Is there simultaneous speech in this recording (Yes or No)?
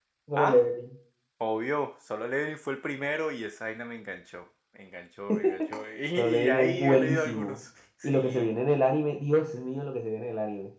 Yes